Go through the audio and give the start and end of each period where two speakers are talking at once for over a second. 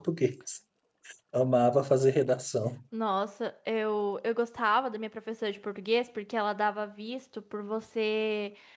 none

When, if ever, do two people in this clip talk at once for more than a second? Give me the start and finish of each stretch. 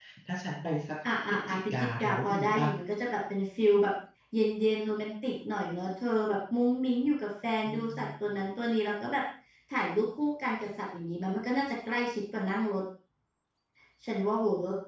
1.3-2.6

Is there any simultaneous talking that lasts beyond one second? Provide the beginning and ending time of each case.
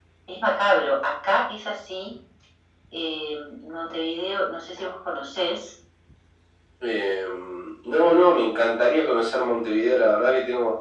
none

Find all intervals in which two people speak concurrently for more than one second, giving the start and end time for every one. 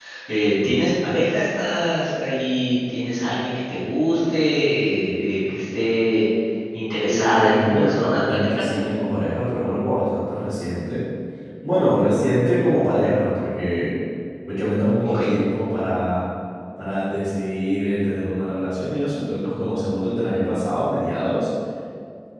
7.1-8.8

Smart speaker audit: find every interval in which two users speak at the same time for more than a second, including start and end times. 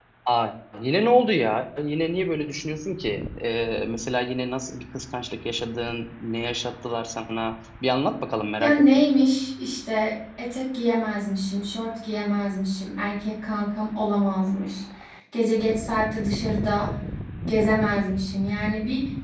none

